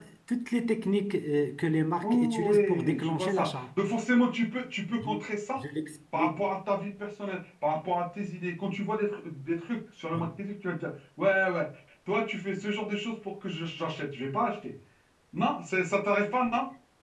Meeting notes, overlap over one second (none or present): present